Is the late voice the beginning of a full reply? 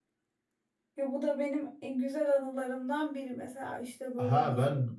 Yes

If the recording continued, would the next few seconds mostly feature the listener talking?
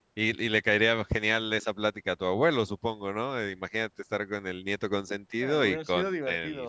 Yes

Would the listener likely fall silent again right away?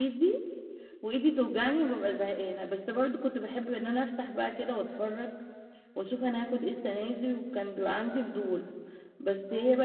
Yes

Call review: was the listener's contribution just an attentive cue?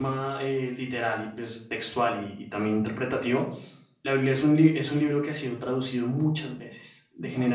Yes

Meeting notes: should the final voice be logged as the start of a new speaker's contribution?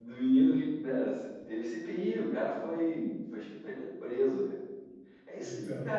No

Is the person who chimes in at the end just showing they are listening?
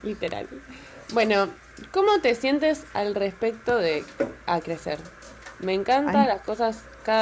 Yes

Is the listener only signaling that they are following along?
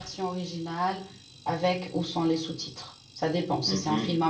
No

